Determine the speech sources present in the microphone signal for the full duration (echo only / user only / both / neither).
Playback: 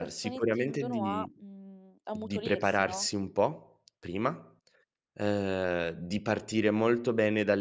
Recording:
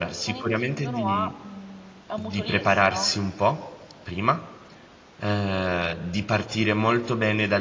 echo only